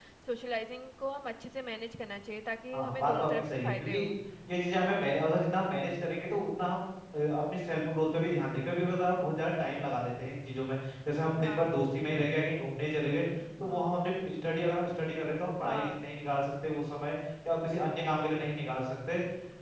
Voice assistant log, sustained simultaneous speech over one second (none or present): present